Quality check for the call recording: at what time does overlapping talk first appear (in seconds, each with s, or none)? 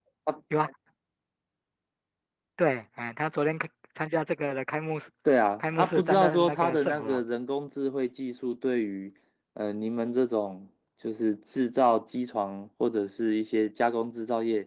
5.6 s